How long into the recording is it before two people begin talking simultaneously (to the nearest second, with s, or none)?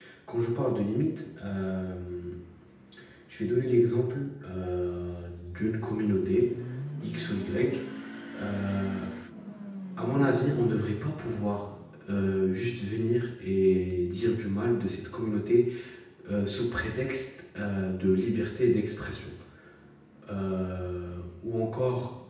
none